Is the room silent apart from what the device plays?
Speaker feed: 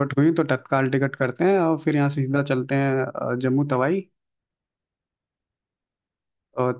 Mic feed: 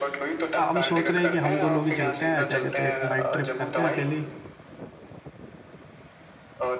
No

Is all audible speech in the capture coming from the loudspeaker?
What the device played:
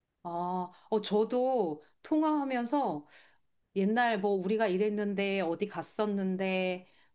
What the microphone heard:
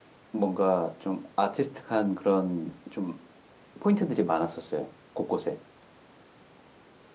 No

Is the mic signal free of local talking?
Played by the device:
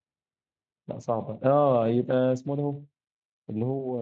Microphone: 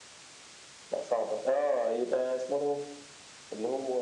Yes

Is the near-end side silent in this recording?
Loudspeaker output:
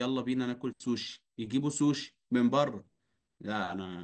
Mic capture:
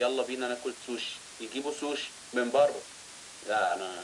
Yes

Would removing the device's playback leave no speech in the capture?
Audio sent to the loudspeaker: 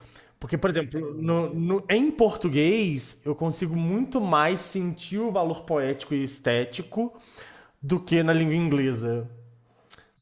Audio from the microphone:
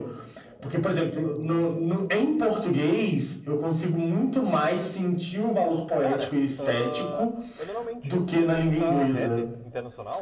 No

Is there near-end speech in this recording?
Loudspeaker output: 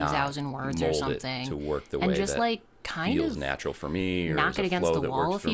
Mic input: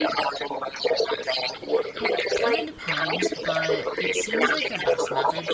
Yes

